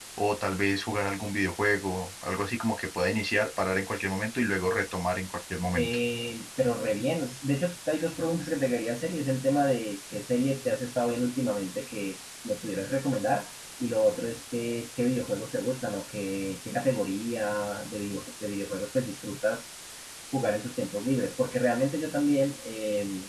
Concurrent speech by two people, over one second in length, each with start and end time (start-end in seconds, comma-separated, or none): none